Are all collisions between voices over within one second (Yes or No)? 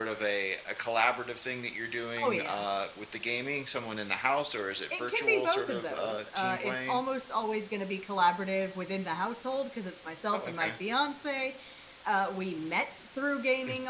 No